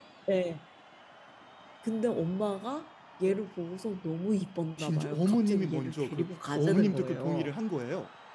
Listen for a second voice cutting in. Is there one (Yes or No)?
Yes